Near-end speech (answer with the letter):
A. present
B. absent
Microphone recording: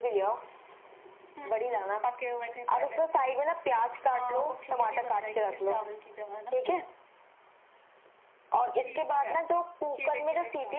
B